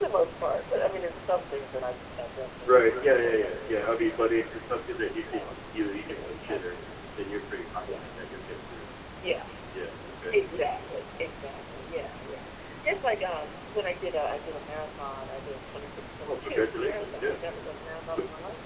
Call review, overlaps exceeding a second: present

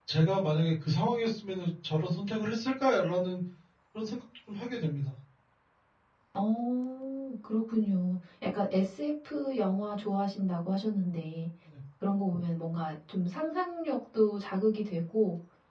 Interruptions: none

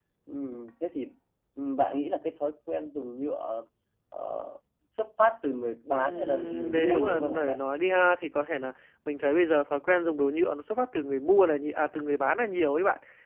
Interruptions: present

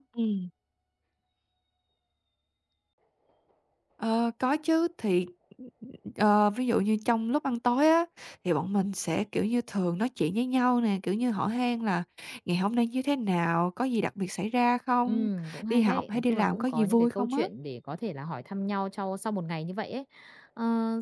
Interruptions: present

